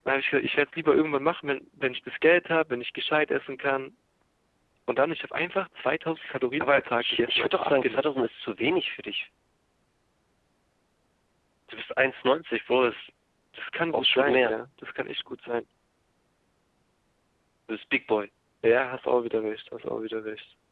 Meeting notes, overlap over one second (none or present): present